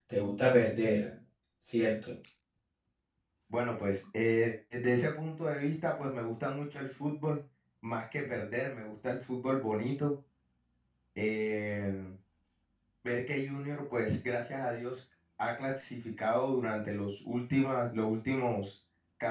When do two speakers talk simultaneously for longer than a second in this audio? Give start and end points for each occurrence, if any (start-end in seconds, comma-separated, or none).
none